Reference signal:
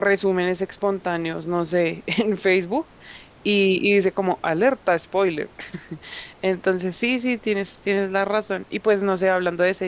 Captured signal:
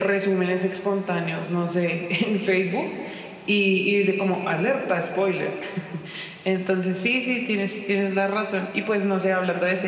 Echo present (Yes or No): Yes